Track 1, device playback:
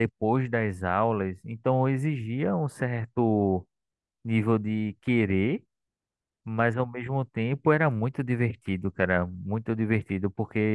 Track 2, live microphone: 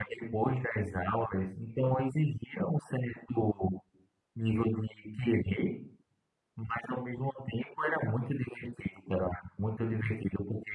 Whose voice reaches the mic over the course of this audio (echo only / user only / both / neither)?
echo only